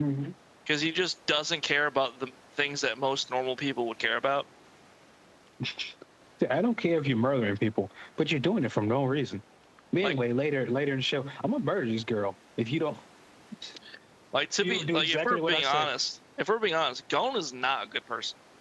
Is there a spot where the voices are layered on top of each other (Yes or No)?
Yes